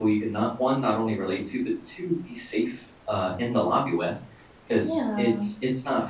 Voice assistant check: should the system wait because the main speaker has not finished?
Yes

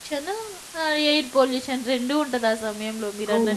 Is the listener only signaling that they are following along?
No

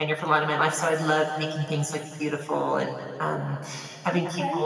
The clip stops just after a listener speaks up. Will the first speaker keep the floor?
Yes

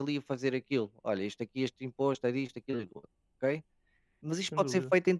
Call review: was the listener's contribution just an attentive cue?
Yes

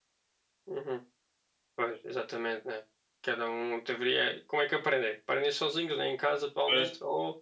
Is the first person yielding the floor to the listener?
No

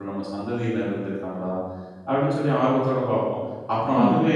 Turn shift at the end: No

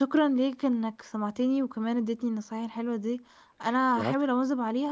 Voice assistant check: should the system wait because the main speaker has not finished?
Yes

